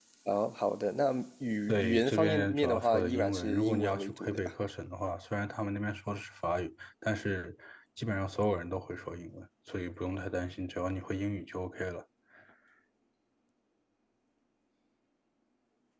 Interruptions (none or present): present